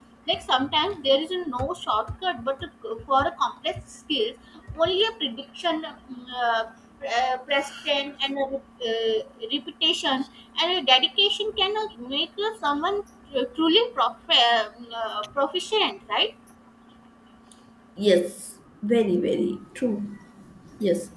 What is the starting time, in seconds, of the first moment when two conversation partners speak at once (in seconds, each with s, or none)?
none